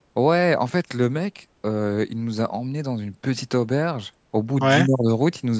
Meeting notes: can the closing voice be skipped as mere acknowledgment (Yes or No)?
Yes